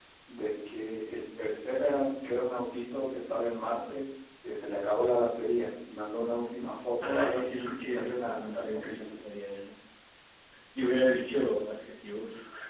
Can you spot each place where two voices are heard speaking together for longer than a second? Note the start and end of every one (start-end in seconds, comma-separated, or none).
7.0-9.2